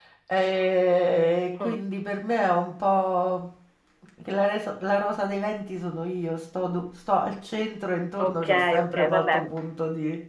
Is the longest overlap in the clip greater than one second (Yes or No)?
Yes